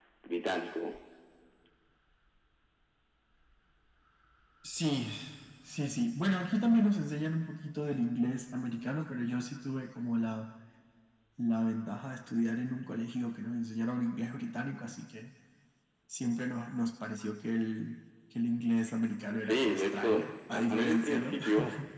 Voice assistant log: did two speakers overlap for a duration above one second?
Yes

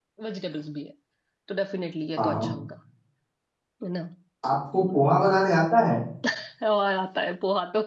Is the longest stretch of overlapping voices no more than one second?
Yes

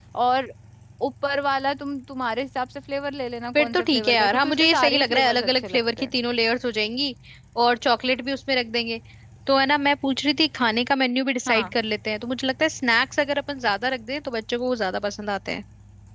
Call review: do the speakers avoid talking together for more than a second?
No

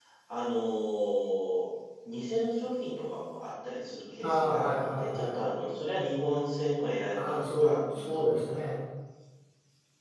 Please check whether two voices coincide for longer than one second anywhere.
Yes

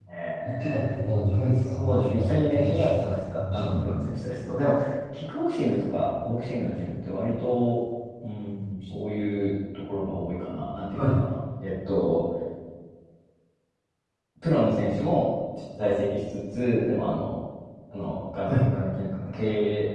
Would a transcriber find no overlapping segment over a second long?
No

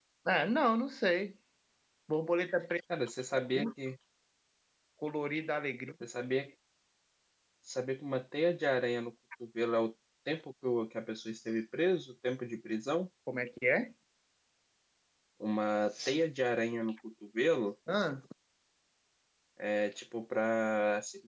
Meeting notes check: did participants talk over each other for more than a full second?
No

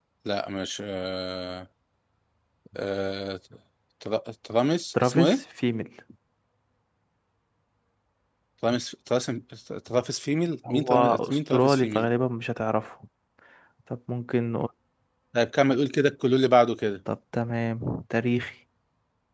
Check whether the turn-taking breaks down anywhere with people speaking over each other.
Yes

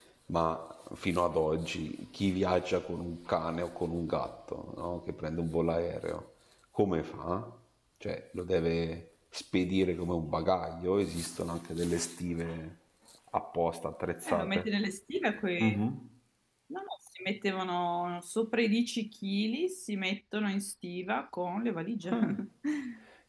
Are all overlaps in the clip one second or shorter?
Yes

